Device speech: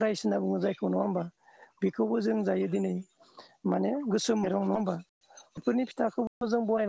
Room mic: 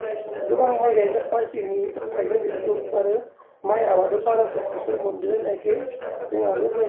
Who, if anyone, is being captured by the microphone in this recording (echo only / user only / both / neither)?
both